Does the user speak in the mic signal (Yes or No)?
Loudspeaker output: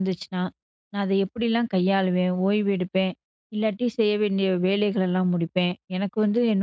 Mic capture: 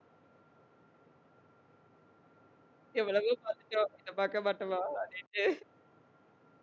Yes